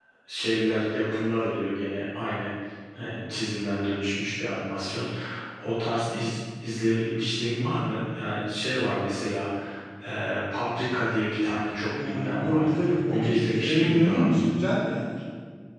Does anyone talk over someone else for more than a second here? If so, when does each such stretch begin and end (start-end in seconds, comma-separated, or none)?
12.0-14.5